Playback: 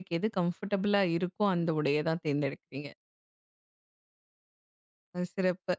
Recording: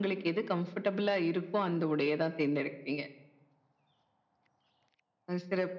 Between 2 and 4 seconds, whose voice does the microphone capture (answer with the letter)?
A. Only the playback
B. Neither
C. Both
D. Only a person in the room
A